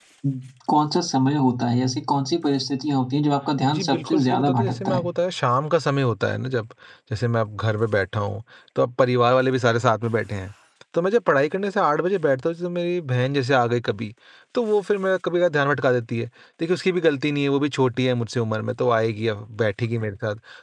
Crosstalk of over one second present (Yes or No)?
Yes